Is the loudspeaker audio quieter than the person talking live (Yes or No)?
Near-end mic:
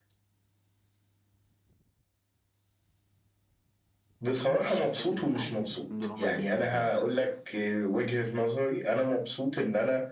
No